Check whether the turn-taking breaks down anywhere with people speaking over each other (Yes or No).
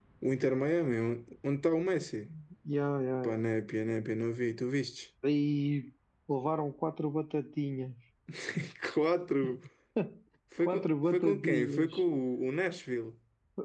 Yes